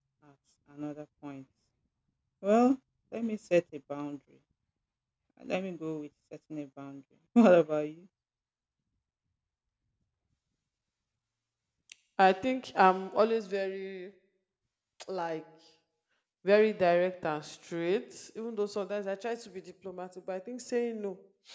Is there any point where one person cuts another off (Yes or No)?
No